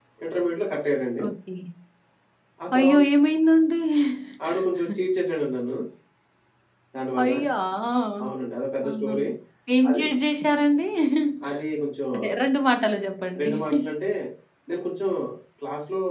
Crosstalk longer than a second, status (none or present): none